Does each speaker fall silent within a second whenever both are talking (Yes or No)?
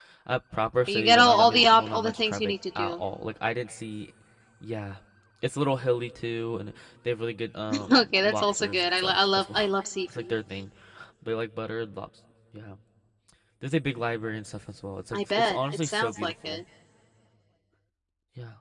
No